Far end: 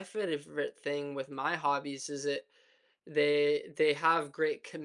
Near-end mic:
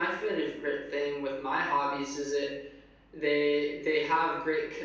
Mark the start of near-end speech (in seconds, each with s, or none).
none